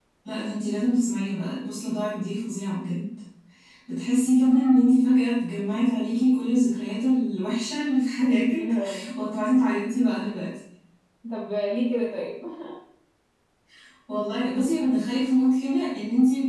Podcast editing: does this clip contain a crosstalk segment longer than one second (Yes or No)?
No